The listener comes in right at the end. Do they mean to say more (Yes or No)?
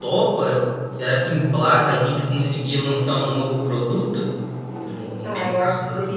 Yes